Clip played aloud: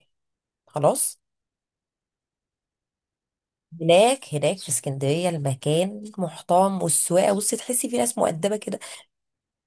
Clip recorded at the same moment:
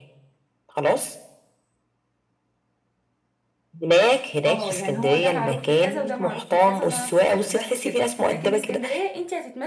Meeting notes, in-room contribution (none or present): present